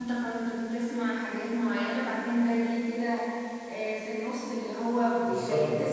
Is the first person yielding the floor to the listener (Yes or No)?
No